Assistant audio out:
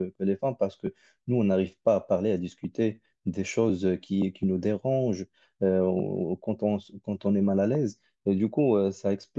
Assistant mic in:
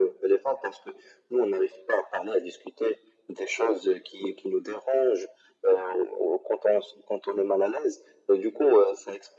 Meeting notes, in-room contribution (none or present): none